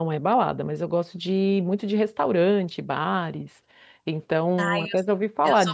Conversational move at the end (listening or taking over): taking over